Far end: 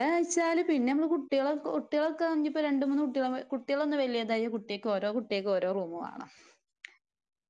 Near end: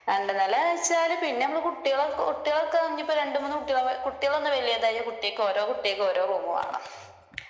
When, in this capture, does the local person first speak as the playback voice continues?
none

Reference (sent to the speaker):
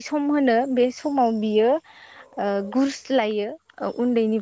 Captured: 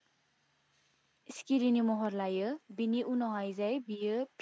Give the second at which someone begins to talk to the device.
1.4 s

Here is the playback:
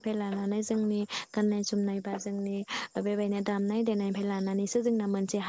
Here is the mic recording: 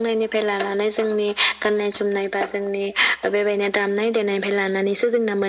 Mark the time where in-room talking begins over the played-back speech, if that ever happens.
none

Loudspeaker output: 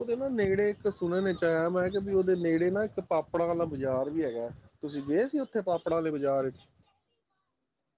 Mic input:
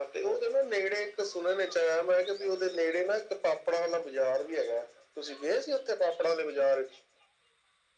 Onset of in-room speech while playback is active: none

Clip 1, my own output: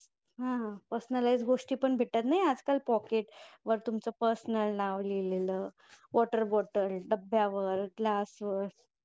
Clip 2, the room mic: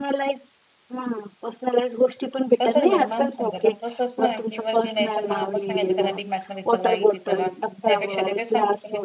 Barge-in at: 2.6 s

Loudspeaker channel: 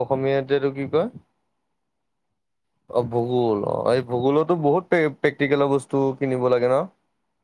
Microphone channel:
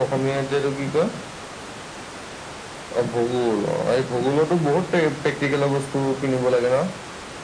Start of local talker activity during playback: none

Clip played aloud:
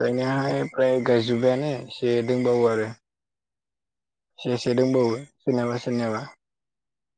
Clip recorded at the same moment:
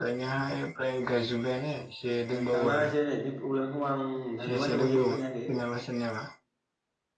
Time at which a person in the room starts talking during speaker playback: 2.3 s

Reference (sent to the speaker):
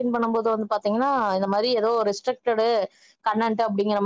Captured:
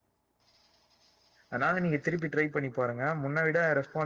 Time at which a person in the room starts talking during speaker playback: 1.5 s

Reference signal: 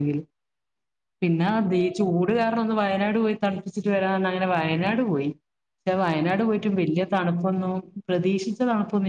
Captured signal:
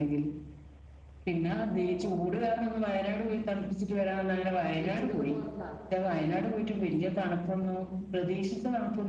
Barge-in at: 4.8 s

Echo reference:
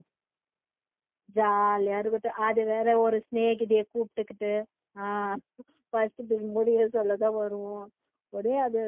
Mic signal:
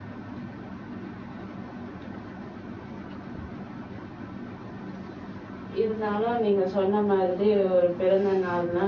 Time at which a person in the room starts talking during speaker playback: 5.8 s

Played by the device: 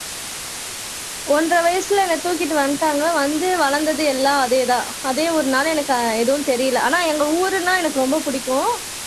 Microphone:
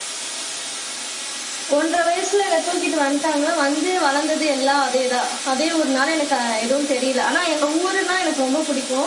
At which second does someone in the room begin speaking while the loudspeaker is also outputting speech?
none

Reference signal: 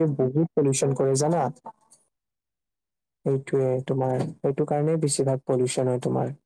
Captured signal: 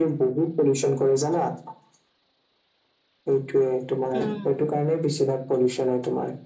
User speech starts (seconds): 4.2 s

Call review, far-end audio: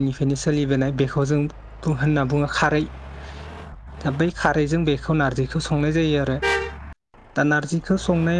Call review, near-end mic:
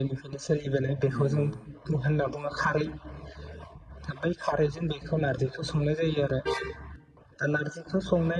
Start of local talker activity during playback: 1.1 s

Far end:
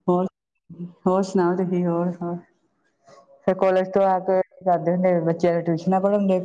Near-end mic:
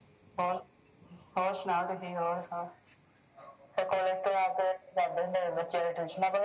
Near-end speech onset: none

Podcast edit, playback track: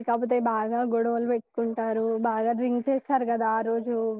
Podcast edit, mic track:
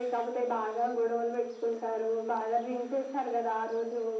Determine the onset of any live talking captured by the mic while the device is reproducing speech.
none

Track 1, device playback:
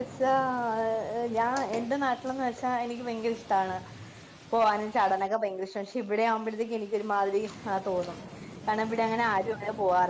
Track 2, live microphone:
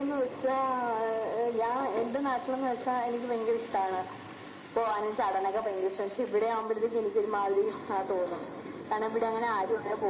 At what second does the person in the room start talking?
none

